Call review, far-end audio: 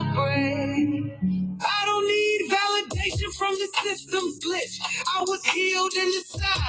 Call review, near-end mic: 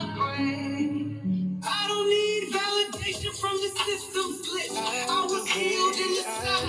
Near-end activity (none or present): present